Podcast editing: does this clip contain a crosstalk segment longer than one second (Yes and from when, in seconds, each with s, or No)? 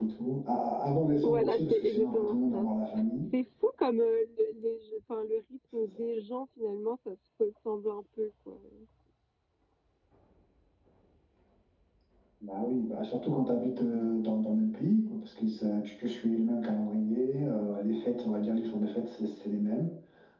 Yes, from 1.2 s